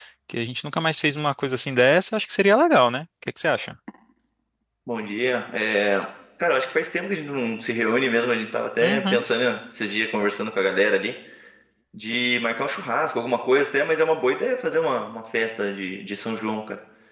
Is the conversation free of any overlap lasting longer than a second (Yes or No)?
Yes